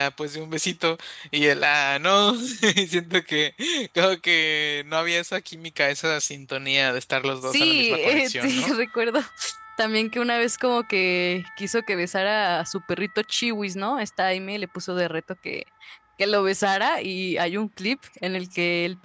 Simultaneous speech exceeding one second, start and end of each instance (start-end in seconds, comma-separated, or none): 7.4-8.7